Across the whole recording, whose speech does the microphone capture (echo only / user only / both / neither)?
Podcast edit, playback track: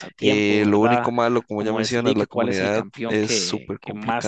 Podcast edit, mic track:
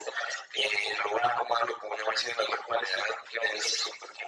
echo only